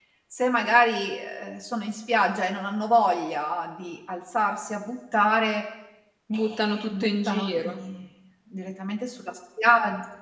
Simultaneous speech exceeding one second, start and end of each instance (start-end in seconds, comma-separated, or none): 6.3-7.7